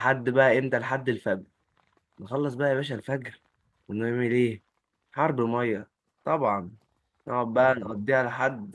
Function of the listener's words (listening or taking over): listening